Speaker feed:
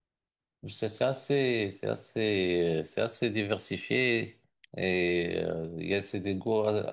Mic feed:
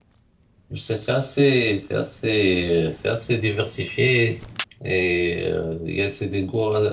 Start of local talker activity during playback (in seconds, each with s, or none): none